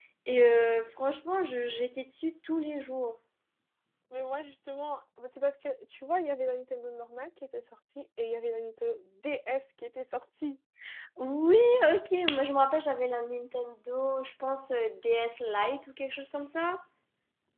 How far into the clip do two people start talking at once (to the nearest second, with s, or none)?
none